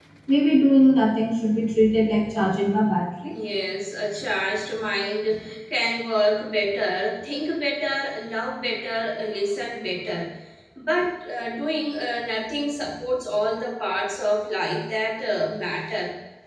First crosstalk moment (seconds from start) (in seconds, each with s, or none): none